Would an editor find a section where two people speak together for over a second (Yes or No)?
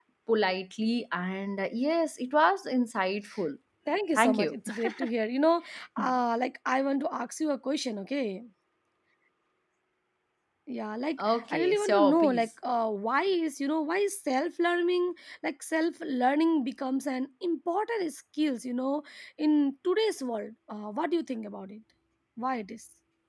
Yes